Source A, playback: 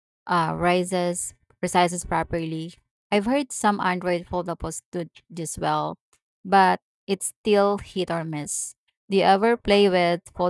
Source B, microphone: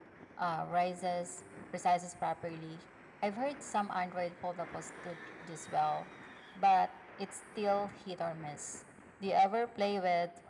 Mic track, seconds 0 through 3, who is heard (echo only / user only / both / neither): echo only